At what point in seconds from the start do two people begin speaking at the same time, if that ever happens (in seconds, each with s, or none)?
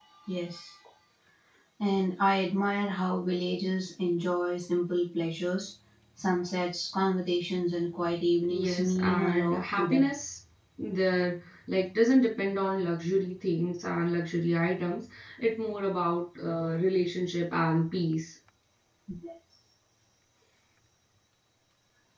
8.5 s